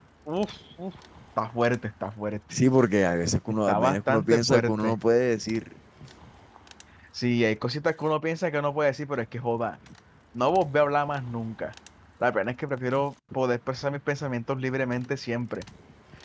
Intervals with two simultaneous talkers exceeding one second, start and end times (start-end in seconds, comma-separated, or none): 3.7-5.0